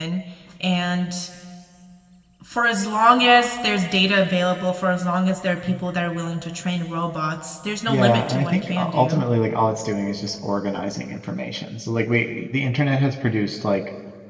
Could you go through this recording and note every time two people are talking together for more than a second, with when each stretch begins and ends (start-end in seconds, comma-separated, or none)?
7.9-9.2